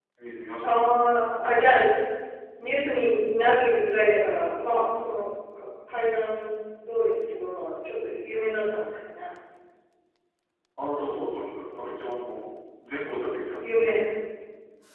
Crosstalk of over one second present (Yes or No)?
No